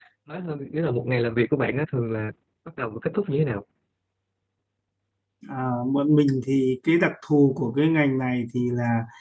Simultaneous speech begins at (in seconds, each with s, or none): none